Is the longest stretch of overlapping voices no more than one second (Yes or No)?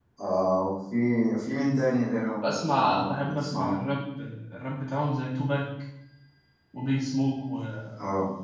No